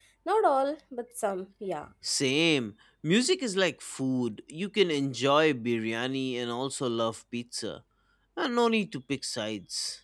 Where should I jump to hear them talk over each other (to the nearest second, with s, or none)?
none